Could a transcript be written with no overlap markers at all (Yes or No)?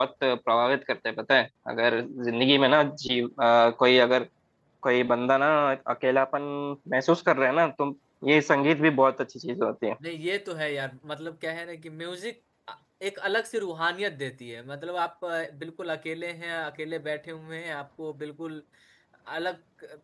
Yes